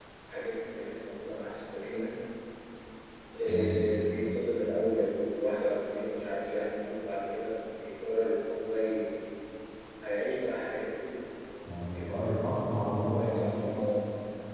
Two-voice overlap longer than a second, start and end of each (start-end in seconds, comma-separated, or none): none